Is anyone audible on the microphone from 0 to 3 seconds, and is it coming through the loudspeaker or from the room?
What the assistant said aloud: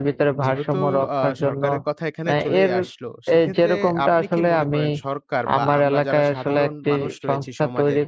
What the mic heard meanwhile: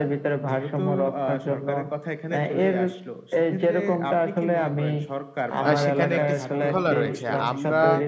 echo only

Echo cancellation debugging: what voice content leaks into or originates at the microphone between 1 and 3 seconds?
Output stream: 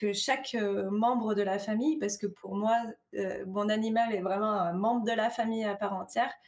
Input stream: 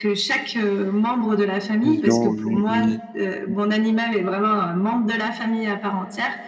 both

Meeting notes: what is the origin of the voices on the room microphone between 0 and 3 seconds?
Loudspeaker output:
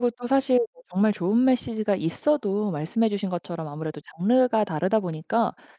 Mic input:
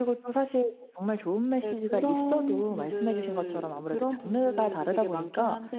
both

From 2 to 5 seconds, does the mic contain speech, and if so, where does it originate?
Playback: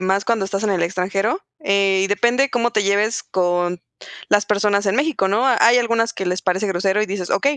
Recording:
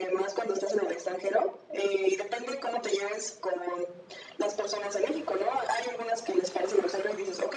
echo only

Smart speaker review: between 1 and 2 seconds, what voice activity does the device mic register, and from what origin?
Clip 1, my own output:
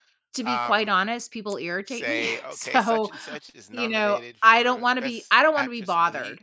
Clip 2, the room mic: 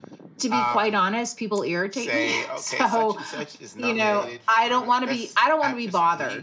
echo only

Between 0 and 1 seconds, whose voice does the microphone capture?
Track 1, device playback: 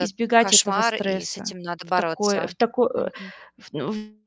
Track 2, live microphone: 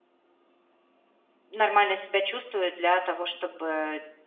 neither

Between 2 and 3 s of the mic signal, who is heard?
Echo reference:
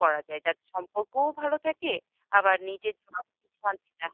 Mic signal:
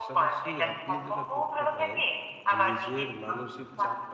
both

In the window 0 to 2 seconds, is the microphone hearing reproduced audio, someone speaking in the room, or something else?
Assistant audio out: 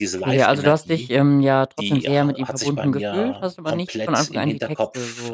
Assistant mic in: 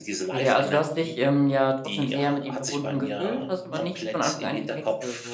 echo only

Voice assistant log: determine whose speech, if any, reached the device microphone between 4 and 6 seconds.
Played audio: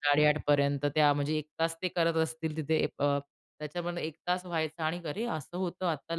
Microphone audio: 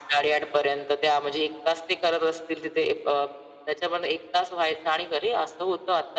echo only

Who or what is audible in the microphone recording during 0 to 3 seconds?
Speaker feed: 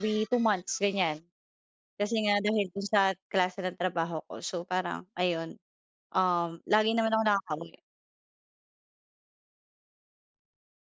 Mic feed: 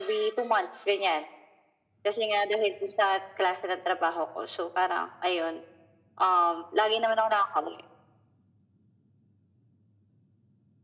echo only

